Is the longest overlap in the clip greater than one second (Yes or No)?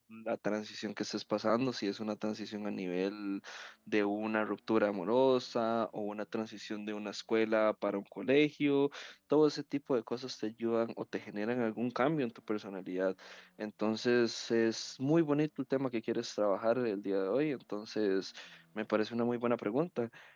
No